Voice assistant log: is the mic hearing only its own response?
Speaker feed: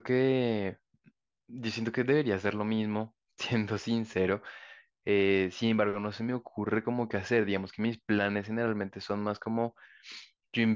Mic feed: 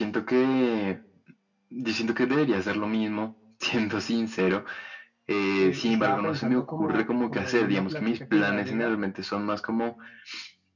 No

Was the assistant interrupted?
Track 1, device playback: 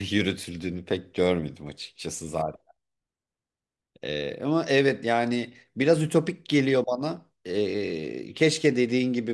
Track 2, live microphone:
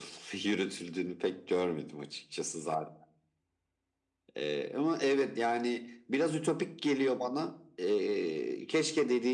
No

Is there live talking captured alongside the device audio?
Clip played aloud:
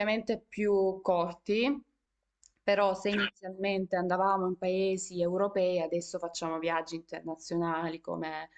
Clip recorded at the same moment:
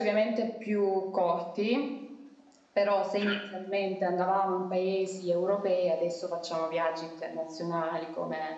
No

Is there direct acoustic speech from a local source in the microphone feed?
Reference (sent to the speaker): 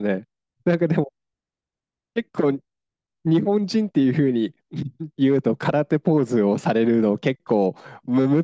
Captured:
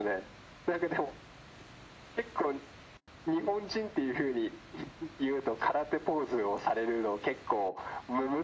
No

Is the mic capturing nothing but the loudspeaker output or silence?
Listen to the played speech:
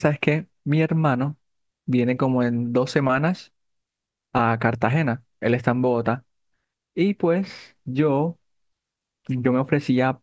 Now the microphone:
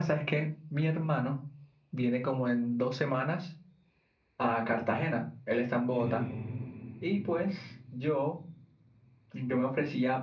No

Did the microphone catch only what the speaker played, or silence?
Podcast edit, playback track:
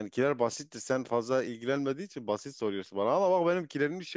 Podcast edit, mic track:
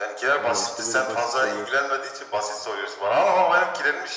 No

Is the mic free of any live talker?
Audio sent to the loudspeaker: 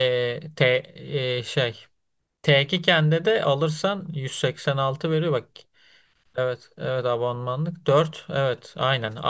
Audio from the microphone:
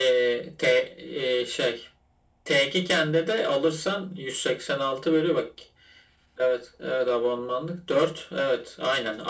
Yes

